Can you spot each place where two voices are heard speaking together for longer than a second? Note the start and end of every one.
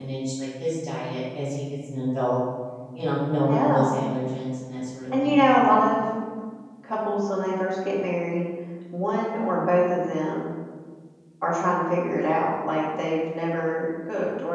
none

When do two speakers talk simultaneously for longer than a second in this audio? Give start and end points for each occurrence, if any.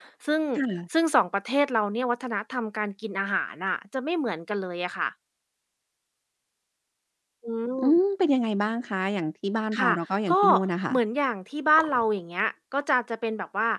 none

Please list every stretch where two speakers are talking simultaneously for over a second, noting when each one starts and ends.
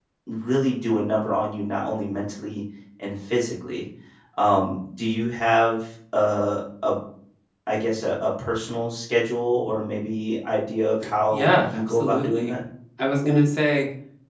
11.3-12.5

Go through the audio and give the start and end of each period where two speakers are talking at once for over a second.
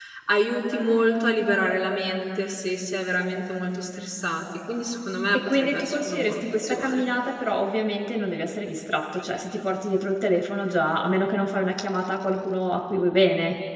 5.5-7.0

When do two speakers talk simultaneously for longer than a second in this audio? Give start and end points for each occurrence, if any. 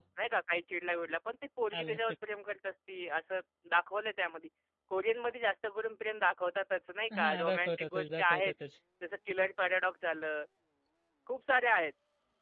7.2-8.5

